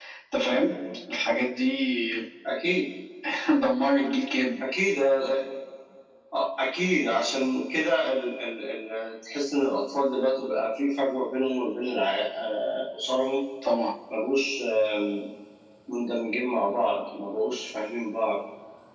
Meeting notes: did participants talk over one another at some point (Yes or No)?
No